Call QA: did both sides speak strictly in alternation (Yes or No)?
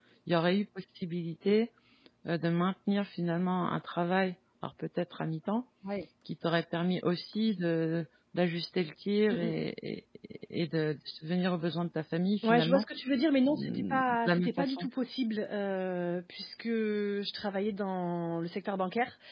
No